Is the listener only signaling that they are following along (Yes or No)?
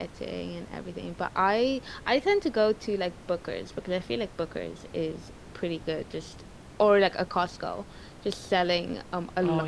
Yes